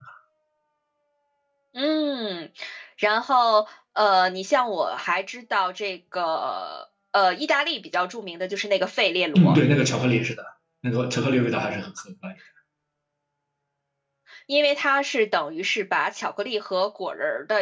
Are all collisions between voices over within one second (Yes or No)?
Yes